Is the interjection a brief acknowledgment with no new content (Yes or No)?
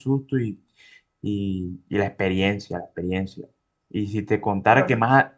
Yes